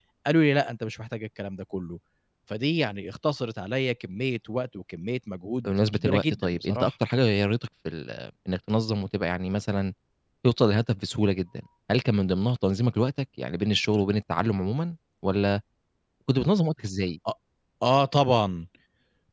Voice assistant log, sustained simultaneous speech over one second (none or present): present